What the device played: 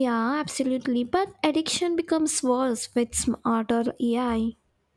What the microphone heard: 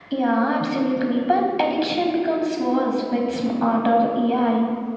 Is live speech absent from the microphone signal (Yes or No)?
Yes